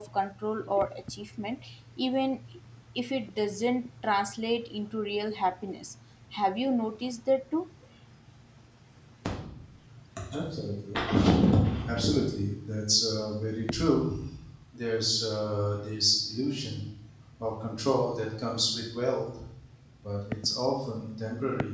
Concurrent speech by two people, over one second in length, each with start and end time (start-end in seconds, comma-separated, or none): none